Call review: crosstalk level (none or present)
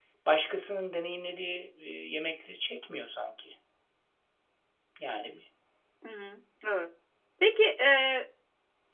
none